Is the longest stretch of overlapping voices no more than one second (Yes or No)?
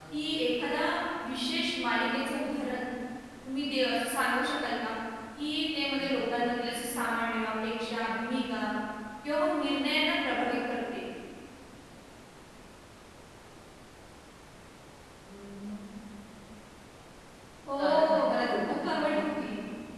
No